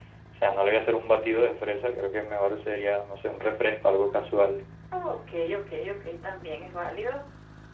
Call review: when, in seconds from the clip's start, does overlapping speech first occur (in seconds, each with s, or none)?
none